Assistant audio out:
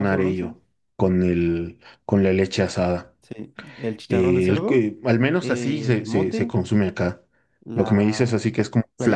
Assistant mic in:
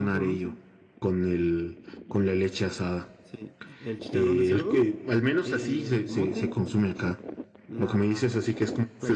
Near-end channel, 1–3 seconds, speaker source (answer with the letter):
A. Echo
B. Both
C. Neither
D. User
A